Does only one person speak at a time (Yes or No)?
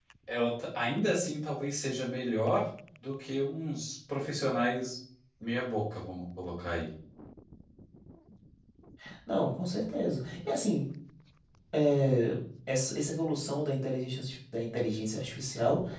Yes